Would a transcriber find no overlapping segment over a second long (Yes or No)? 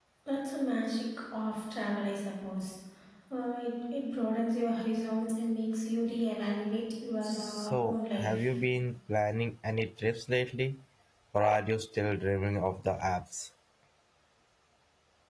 No